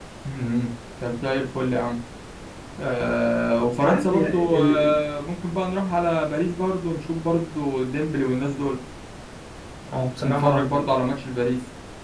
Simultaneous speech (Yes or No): Yes